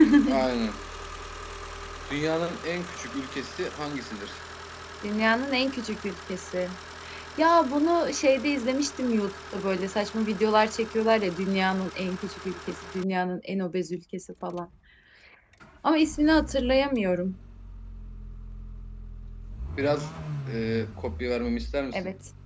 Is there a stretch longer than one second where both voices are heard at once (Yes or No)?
No